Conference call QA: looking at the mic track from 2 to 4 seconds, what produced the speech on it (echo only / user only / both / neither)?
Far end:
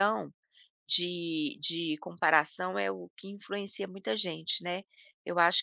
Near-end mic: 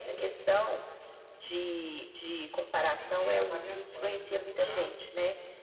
both